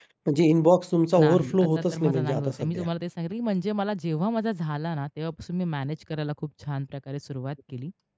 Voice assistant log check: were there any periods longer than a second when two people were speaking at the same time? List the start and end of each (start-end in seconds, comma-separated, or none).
1.2-2.9